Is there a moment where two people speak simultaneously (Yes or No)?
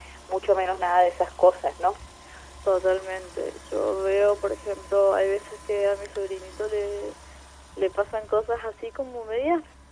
No